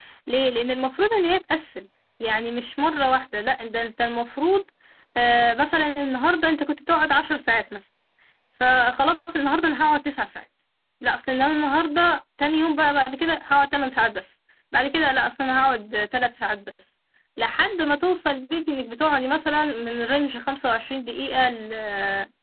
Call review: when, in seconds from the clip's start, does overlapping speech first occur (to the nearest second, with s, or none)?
none